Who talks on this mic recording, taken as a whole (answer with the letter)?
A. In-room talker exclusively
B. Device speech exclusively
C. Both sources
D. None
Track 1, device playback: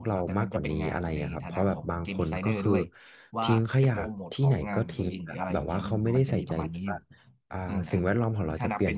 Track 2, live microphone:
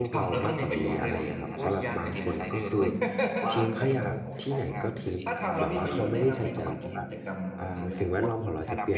C